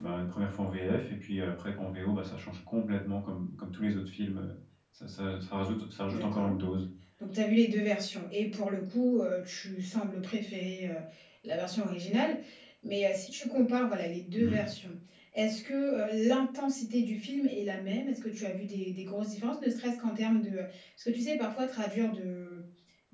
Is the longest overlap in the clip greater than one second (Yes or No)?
No